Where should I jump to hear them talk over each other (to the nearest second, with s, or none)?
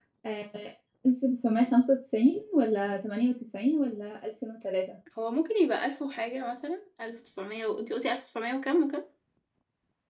none